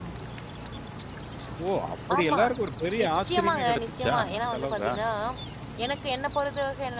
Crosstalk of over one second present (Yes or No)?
Yes